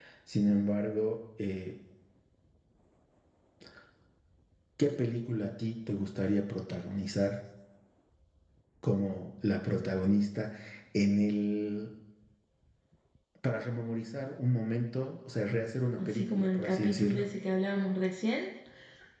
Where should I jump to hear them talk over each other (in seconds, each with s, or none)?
16.0 s